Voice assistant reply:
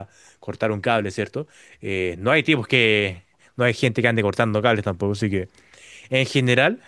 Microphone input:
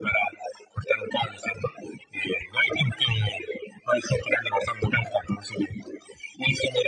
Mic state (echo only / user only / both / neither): echo only